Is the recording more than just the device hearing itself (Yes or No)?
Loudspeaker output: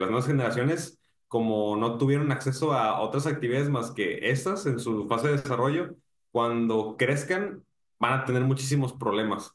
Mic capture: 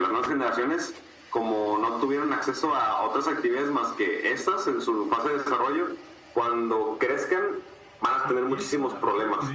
Yes